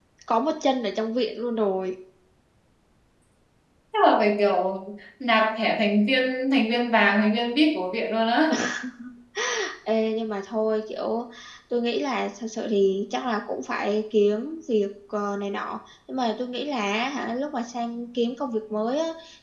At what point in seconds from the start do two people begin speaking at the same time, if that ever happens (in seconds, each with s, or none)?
none